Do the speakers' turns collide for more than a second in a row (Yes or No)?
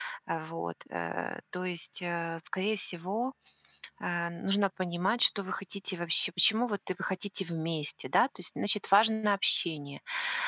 No